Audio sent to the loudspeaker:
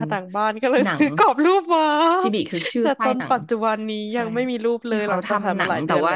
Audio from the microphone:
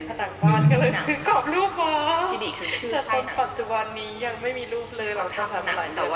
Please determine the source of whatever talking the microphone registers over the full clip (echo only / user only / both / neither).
both